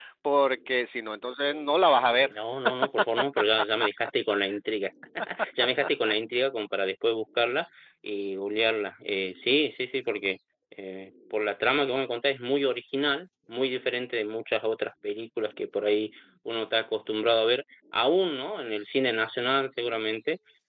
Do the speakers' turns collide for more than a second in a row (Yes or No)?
No